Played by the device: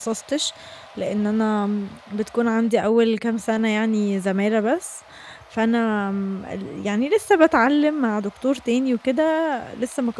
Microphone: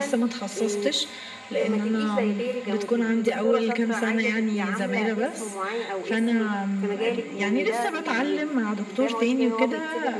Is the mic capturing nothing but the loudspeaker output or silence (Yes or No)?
No